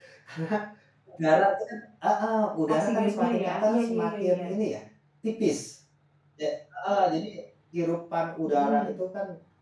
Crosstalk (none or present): present